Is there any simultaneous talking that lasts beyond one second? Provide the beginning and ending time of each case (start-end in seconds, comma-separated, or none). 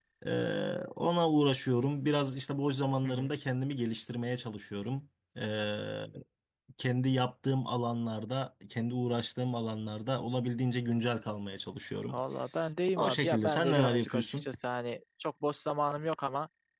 13.0-14.4